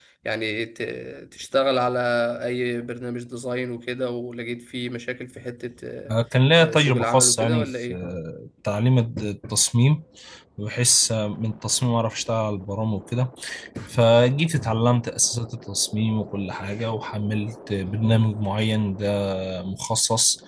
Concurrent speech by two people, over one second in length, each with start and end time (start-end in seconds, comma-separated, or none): 6.5-8.0